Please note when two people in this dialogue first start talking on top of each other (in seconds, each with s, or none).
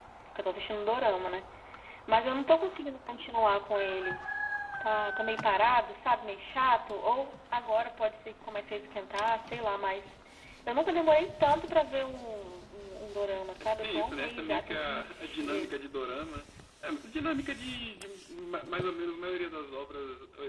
13.6 s